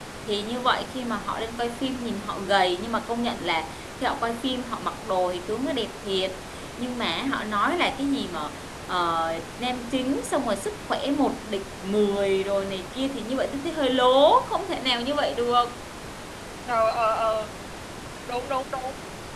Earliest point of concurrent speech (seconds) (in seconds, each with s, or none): none